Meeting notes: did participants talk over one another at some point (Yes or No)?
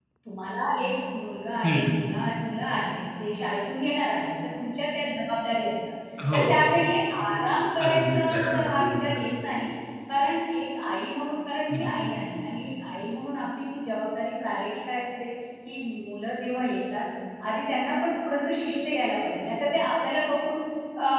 Yes